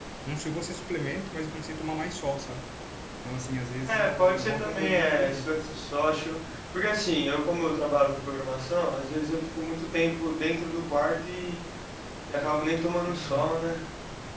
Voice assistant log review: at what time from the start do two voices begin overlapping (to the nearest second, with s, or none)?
4 s